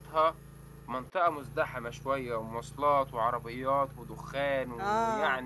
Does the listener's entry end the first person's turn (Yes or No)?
Yes